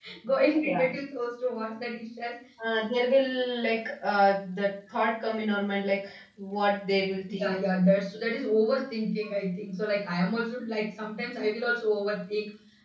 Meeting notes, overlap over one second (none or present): none